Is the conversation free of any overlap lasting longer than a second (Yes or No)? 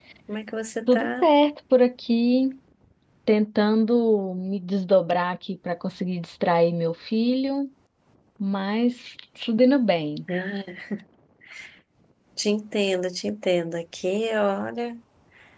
Yes